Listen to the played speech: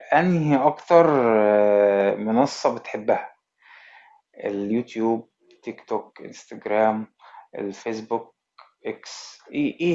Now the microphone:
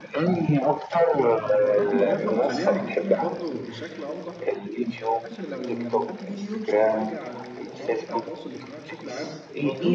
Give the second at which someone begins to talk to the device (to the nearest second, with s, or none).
1 s